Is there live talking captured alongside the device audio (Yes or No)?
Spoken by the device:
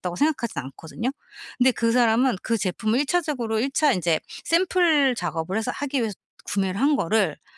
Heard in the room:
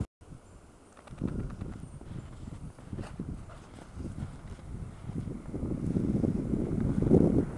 No